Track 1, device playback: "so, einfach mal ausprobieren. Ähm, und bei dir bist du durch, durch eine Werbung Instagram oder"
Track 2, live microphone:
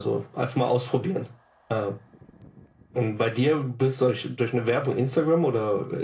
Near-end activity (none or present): none